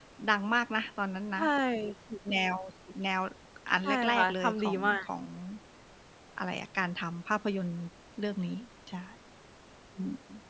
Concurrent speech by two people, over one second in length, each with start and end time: 3.9-5.0

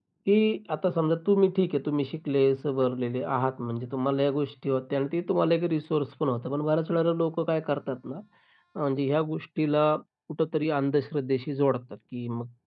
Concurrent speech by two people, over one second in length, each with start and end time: none

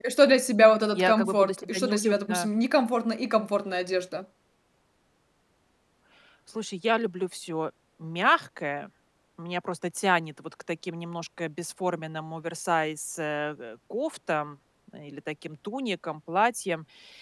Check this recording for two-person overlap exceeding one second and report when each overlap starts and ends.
0.9-2.5

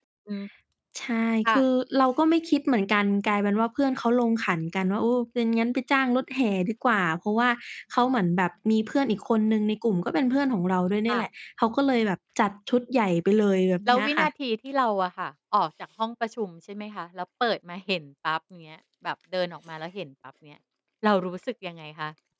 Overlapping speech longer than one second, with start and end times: none

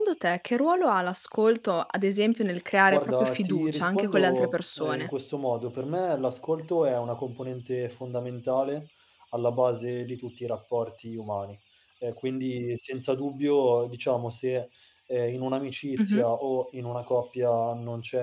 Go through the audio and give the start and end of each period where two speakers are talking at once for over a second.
2.9-5.1

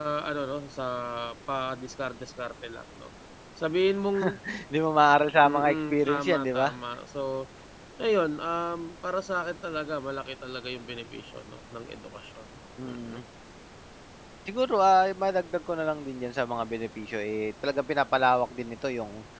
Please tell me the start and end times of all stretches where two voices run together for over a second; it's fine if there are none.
5.4-6.7

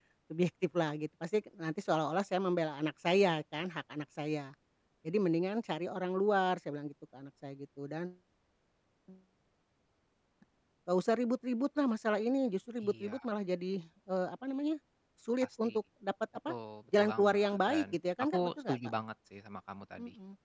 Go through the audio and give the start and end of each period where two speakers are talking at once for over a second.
17.0-18.8

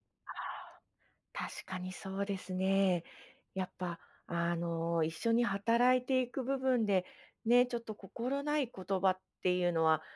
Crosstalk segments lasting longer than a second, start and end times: none

